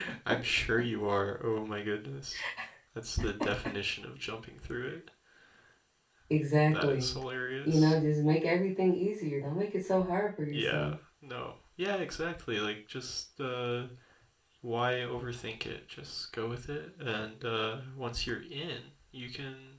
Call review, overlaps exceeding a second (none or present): none